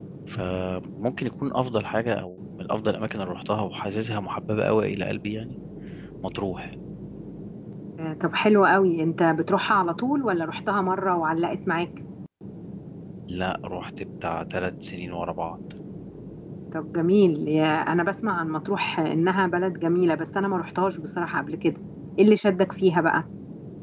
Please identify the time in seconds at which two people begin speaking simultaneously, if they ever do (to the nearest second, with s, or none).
none